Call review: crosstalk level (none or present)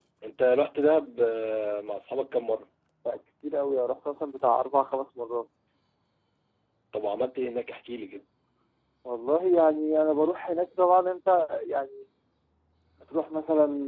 none